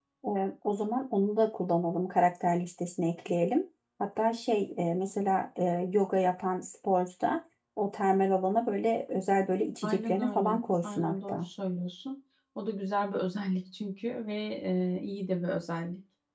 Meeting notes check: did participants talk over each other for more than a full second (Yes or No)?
Yes